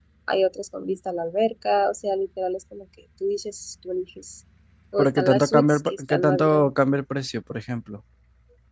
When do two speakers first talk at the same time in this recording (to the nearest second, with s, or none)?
5 s